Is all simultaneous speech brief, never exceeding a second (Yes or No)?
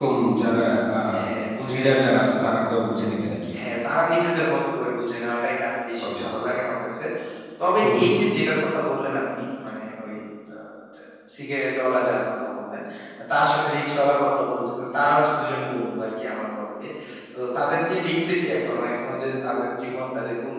Yes